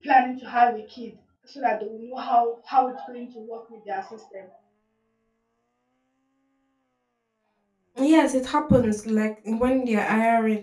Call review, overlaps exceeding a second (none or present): none